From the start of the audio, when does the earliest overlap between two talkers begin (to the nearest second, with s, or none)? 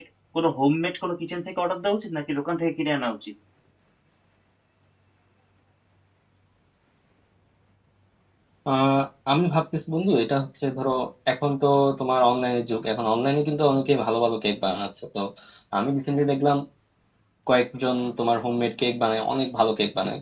none